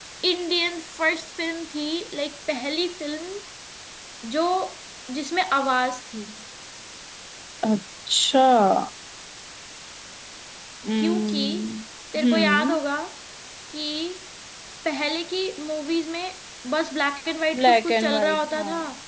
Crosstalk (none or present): present